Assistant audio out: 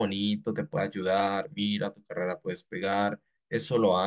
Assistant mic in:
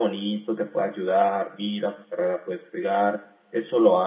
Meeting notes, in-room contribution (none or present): none